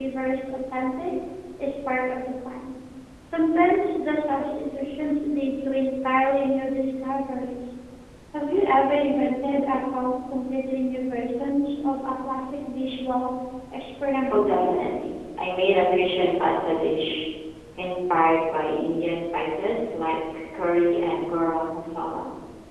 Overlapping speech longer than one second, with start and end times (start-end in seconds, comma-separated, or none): none